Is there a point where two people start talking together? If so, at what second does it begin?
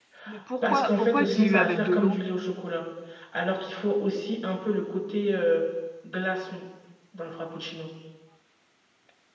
0.6 s

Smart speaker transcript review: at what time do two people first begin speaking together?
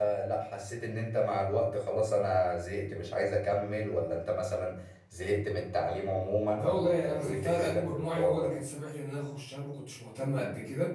6.5 s

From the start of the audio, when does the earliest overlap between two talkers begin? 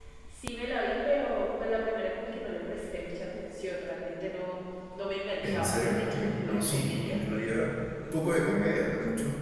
5.4 s

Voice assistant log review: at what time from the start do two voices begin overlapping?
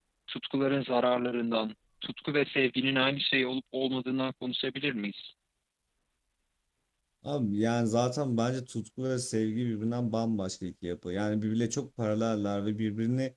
none

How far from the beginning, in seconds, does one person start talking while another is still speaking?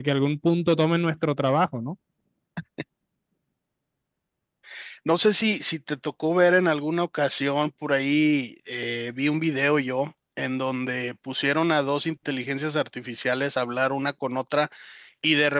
none

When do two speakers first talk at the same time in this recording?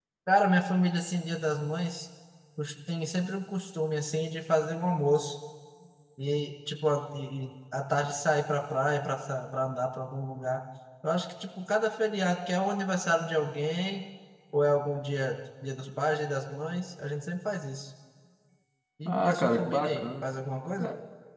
19.1 s

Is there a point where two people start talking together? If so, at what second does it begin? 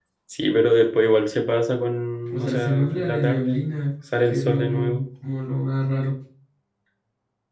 2.2 s

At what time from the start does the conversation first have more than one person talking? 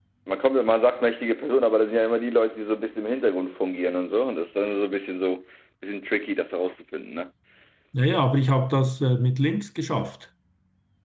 none

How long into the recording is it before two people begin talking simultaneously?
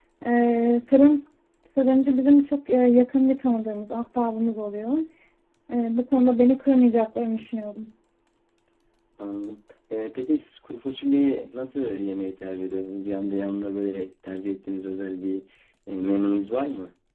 none

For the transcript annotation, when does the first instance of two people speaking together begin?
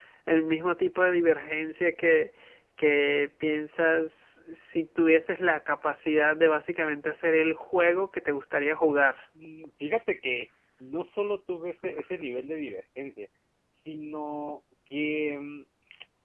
none

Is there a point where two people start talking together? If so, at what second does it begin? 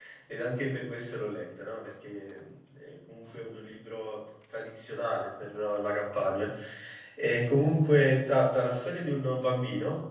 none

